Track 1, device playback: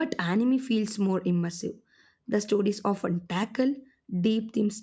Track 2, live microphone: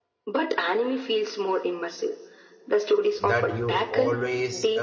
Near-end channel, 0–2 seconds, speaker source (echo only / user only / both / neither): echo only